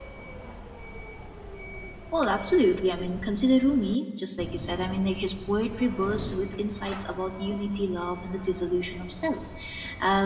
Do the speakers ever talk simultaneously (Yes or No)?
No